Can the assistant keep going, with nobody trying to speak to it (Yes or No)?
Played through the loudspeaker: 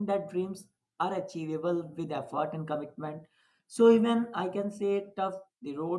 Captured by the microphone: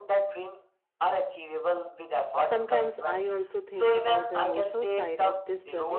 No